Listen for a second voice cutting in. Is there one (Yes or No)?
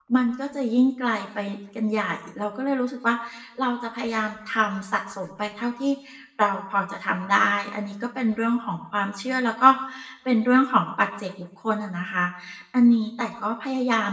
No